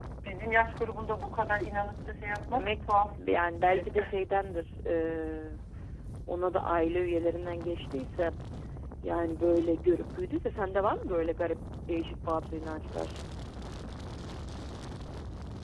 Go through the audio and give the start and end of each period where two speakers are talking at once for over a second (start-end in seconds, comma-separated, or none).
none